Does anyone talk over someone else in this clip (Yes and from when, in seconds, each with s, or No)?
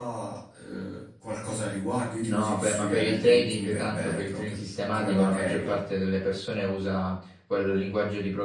Yes, from 2.2 s